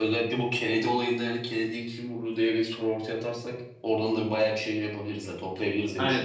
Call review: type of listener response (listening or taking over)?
taking over